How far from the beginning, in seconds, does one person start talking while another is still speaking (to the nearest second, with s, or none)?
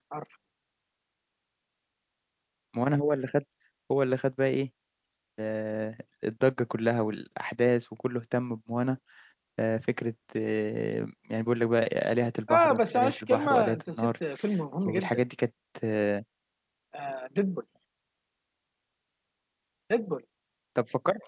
13 s